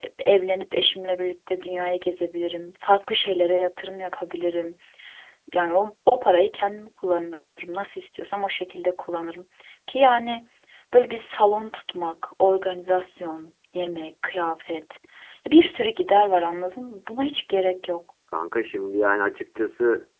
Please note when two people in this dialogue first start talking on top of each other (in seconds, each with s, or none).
none